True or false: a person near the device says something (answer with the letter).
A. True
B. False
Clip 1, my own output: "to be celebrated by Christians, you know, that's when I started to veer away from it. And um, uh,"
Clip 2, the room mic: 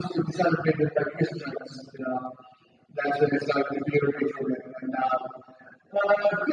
B